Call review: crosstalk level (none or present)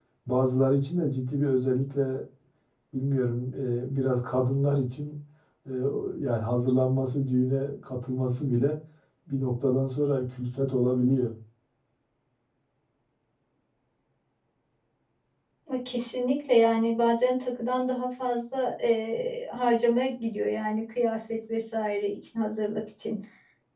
none